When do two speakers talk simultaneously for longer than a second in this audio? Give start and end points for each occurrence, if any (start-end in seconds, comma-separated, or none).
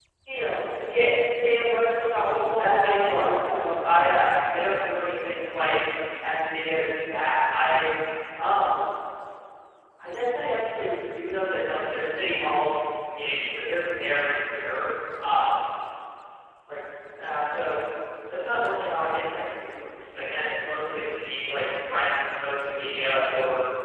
2.6-4.0